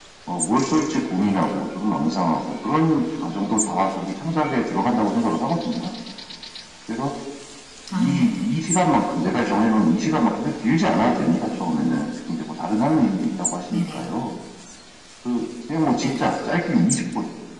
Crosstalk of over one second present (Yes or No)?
No